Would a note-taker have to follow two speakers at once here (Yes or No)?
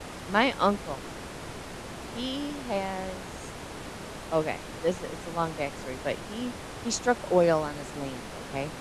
No